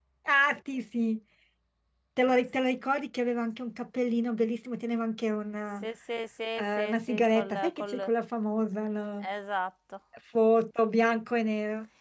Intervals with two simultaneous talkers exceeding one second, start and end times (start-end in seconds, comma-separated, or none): 6.6-8.1